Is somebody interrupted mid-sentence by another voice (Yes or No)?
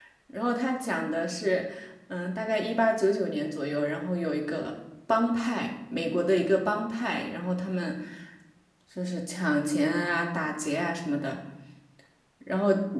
No